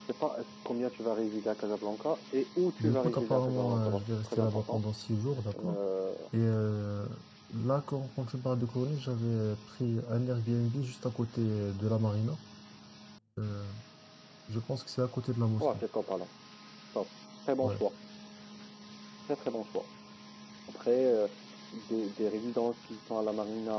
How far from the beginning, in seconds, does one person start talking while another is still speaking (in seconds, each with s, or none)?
2.8 s